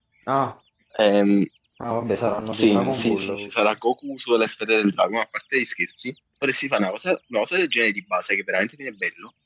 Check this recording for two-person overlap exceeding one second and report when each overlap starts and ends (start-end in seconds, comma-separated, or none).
2.5-3.7